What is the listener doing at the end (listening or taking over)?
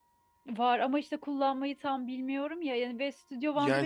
taking over